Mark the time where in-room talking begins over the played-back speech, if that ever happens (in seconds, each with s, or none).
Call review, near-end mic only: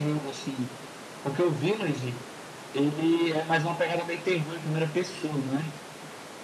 none